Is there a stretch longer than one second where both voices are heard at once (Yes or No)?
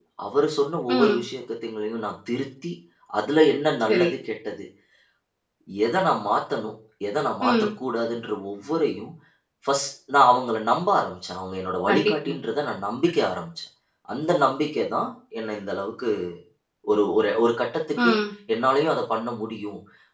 No